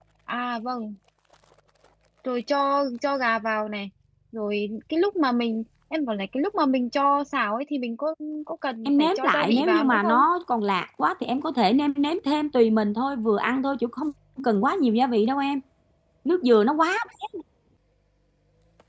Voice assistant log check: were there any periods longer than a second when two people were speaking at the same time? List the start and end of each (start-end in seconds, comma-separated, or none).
8.8-10.2